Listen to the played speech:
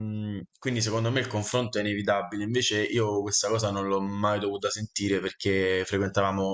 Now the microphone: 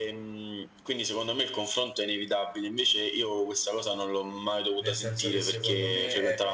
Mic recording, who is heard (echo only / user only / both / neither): both